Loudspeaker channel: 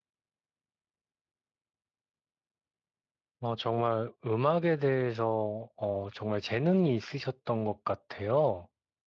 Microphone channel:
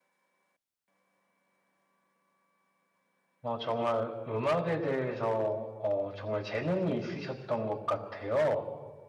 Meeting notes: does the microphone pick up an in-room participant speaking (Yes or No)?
No